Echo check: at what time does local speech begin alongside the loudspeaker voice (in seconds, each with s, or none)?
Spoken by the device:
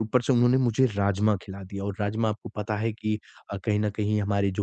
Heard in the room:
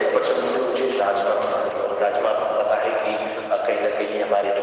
none